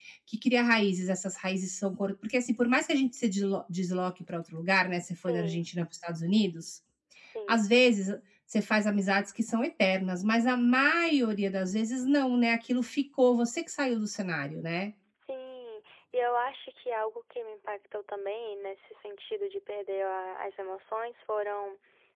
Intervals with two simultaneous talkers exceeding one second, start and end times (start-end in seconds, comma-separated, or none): none